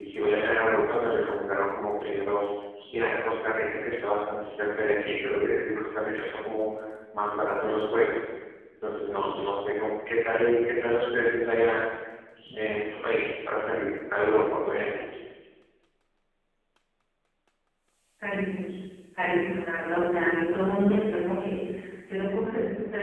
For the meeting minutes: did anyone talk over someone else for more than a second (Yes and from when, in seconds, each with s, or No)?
No